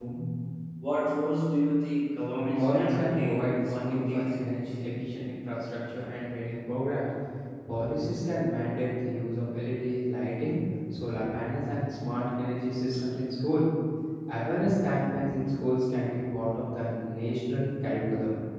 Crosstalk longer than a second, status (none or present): present